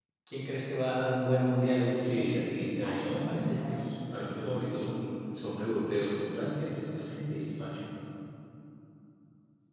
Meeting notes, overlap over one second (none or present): present